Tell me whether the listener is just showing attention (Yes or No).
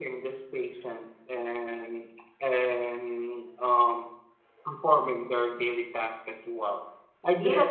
Yes